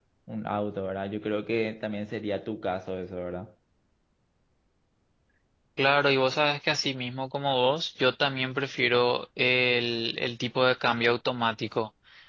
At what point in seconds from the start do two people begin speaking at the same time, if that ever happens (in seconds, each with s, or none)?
none